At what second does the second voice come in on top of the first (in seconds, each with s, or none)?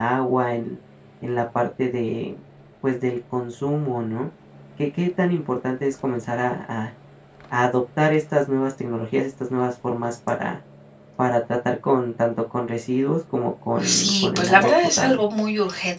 13.8 s